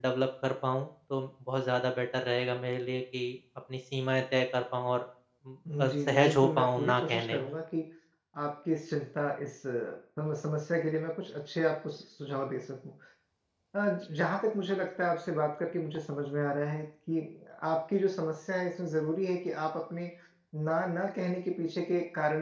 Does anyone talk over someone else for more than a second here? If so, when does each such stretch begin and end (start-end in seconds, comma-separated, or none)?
5.8-7.5